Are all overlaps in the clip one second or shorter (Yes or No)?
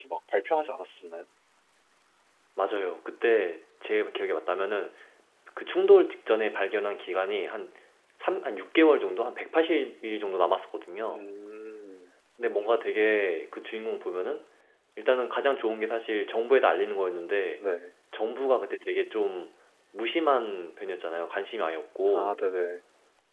Yes